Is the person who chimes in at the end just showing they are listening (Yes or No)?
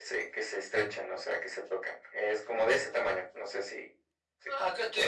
No